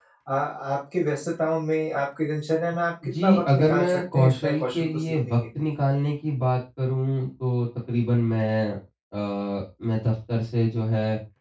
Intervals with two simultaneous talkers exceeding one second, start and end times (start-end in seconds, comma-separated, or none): 3.2-5.4